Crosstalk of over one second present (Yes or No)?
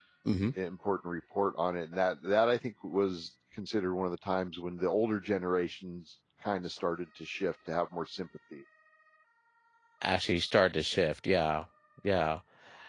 No